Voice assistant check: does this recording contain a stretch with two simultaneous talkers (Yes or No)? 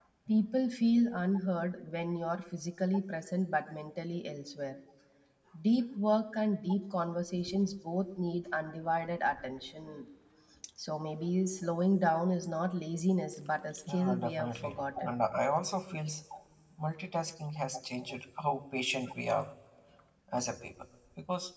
Yes